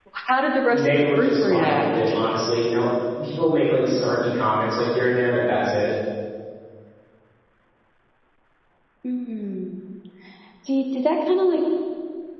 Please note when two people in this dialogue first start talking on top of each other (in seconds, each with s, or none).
0.7 s